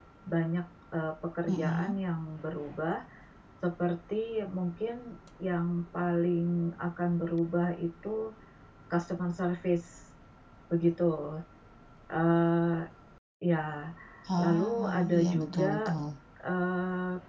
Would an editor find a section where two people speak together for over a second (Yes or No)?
Yes